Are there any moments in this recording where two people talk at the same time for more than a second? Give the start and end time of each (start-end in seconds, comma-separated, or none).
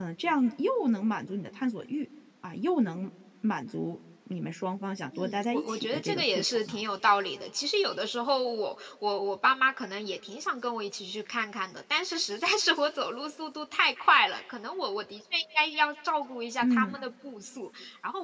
5.1-6.7